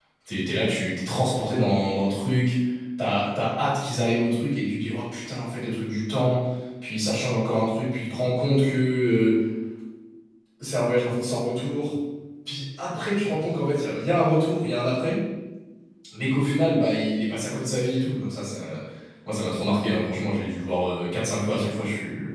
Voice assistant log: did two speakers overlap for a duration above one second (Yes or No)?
No